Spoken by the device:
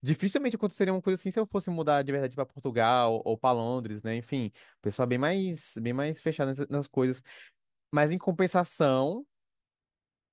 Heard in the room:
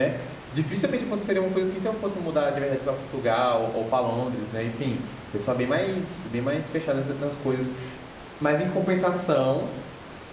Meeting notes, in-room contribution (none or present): none